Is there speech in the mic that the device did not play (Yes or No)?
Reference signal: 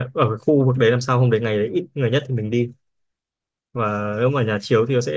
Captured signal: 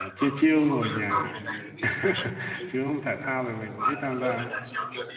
Yes